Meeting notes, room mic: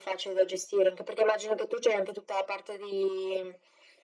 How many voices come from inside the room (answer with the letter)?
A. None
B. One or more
A